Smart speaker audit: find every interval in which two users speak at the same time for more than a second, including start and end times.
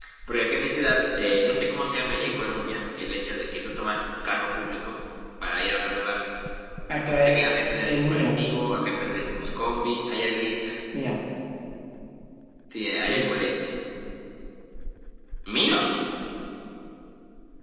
7.0-8.2

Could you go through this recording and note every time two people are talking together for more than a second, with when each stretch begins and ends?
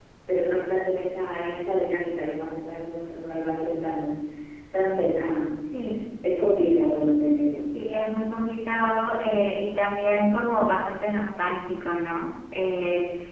none

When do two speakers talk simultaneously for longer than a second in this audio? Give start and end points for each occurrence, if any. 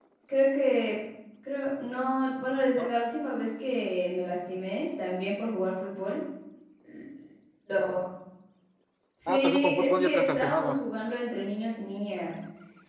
9.3-10.7

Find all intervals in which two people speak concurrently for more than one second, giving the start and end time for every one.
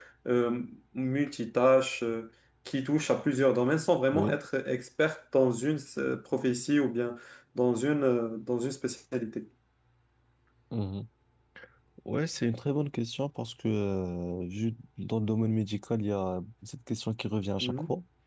none

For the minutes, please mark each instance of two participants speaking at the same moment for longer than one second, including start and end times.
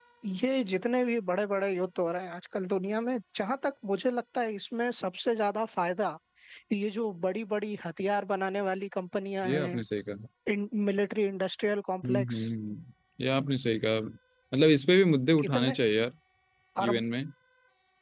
none

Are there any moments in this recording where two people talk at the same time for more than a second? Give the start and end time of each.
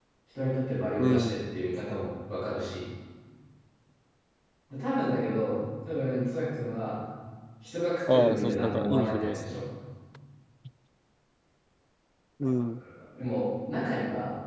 8.1-9.6

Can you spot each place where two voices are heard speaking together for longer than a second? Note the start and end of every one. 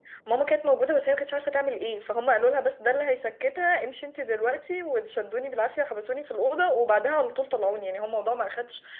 none

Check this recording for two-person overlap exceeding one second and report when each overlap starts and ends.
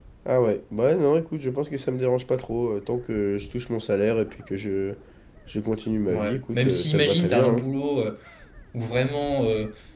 6.1-7.6

